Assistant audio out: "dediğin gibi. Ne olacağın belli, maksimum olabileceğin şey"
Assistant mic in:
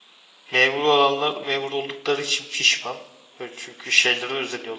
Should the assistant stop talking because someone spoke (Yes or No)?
Yes